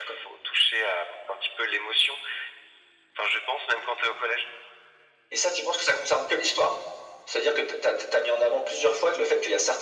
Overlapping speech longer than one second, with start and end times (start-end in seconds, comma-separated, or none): none